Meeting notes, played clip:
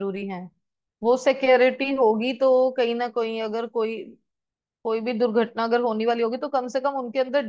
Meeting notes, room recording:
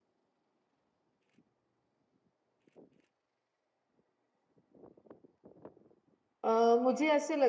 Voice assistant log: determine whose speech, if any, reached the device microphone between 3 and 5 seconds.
neither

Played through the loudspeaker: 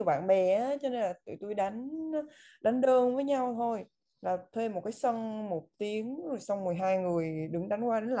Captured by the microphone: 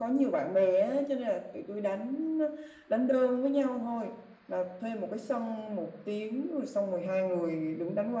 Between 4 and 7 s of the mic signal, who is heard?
echo only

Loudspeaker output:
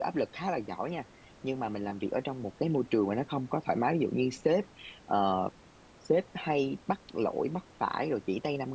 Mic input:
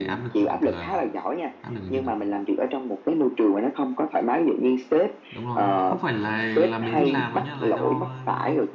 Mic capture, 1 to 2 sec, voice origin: both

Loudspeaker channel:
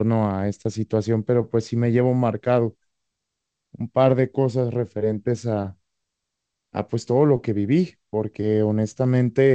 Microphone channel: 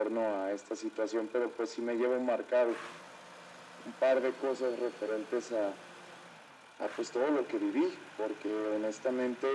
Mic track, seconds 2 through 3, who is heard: echo only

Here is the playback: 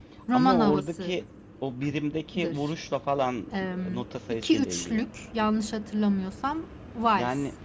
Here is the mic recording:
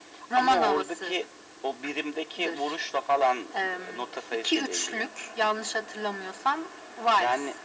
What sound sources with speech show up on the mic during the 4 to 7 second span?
echo only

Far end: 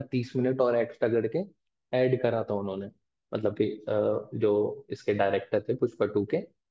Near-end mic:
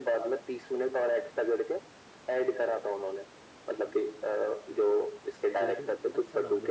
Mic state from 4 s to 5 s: echo only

